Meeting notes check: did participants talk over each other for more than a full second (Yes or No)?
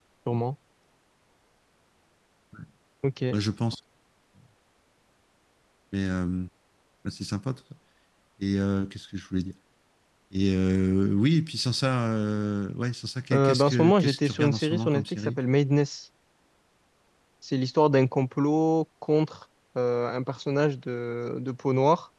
Yes